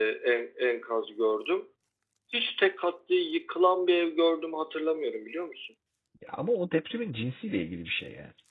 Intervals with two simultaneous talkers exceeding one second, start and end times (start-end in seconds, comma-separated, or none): none